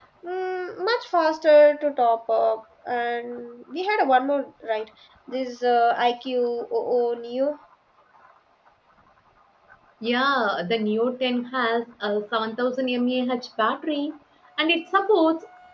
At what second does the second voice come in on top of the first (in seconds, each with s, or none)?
none